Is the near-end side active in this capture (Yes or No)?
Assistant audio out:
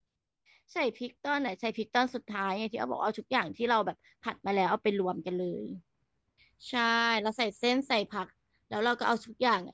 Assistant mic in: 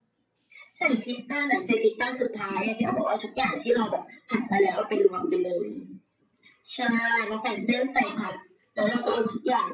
No